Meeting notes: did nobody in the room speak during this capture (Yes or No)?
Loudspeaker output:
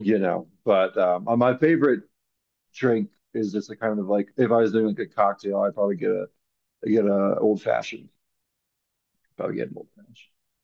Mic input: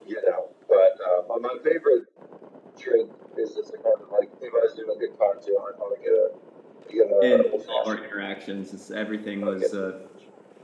No